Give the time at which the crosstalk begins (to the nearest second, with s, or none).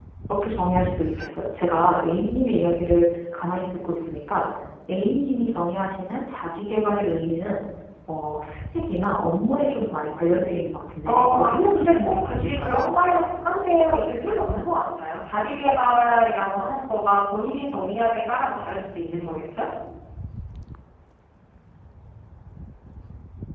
11 s